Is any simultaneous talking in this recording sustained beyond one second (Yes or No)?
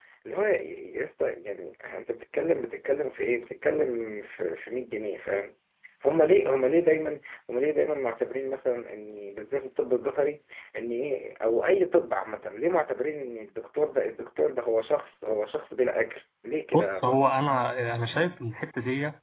No